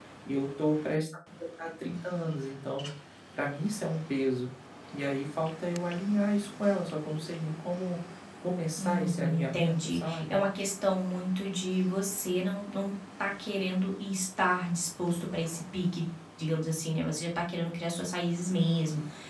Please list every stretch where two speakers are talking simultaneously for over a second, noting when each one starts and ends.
8.8-10.4

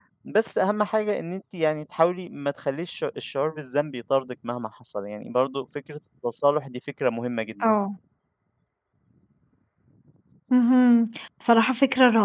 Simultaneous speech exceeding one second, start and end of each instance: none

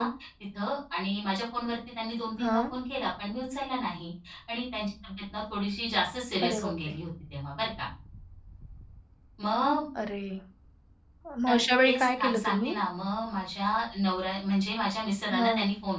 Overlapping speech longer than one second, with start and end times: 11.5-12.7

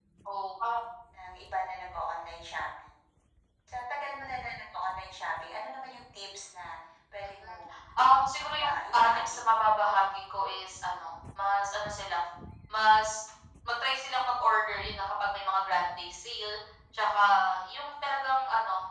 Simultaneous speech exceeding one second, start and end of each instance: 8.4-9.8

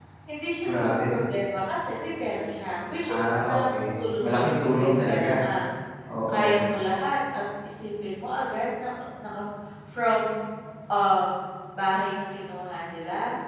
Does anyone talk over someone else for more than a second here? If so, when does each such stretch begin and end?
3.1-5.4

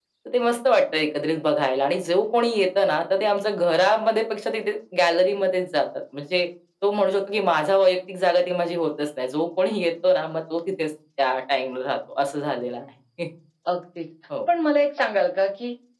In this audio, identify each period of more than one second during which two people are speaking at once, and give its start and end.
none

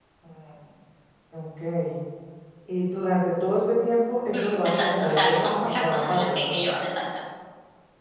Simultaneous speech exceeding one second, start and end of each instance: 4.3-6.5

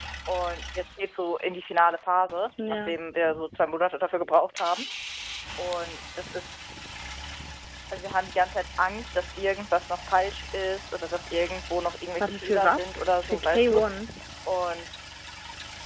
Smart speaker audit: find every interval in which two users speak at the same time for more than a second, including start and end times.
12.2-13.8

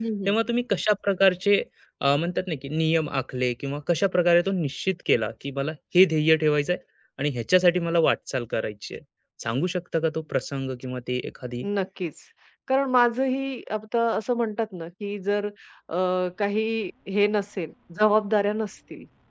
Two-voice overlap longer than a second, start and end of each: none

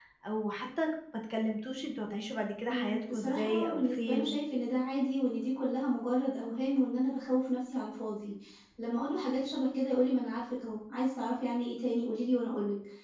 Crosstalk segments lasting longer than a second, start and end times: 2.7-4.3

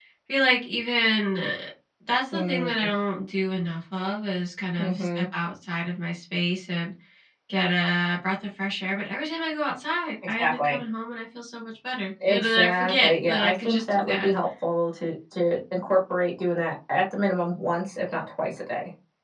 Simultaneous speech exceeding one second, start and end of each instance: 12.3-14.3

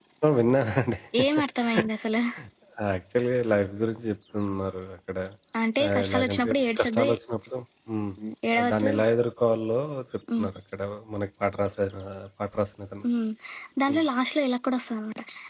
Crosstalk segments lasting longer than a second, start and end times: 5.8-7.1

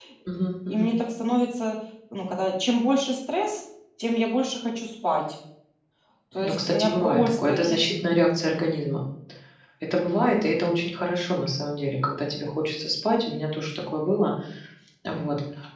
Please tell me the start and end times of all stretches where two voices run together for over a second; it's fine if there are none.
6.4-7.8

